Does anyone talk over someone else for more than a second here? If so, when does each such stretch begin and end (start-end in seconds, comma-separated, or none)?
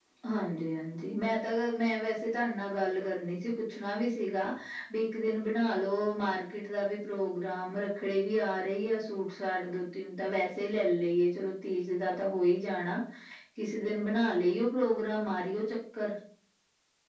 none